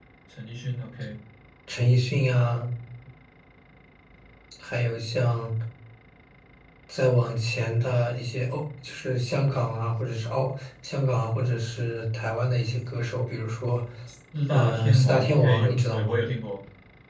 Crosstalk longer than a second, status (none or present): present